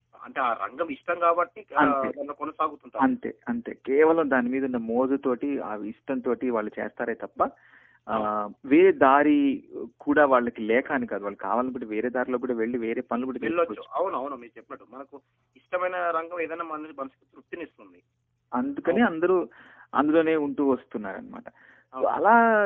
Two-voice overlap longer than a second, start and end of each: none

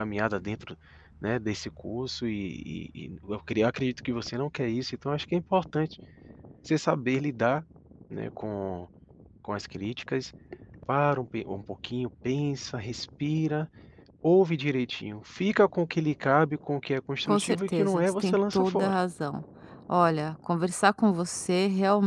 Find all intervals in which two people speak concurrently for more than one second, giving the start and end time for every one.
17.3-18.9

